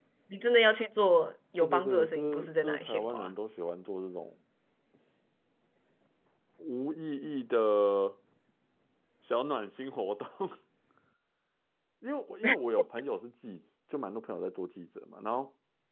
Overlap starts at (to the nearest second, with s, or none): 2 s